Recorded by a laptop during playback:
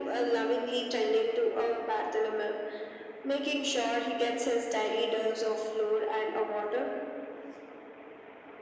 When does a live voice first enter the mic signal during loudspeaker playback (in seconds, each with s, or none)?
none